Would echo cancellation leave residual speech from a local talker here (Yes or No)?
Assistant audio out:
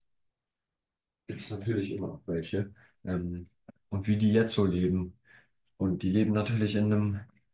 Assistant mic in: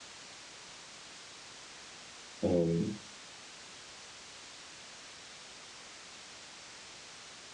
Yes